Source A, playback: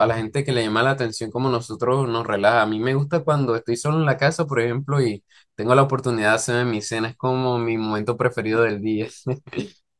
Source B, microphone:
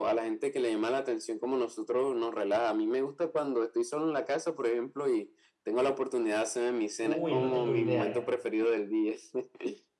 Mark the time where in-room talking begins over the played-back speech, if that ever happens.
7.0 s

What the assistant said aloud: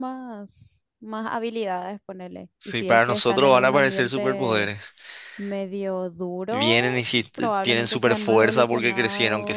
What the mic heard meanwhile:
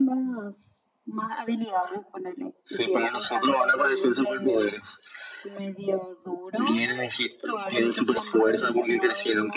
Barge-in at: none

